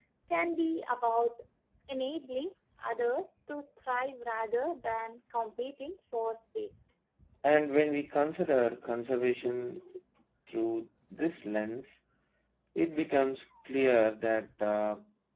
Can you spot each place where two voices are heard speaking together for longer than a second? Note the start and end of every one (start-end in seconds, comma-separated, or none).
none